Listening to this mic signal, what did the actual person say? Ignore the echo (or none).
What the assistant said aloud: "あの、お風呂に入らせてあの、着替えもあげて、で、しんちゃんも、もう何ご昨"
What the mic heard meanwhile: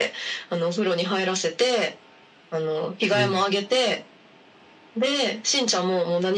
うん。